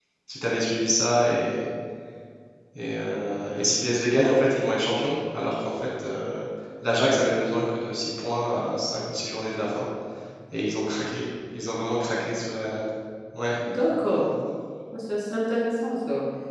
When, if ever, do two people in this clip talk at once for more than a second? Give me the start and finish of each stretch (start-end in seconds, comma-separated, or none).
none